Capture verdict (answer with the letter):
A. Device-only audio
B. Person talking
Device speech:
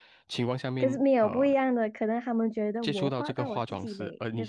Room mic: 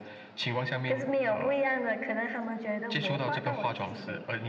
A